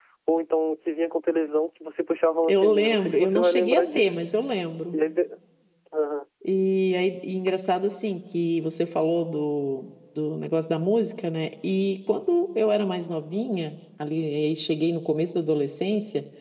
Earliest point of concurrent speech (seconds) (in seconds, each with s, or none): 2.4 s